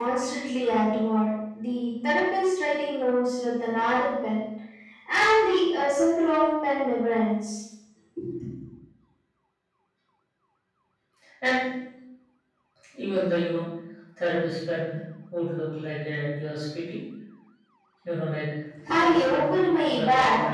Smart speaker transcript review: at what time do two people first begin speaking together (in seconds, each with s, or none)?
18.9 s